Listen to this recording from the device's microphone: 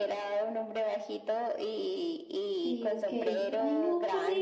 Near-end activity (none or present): present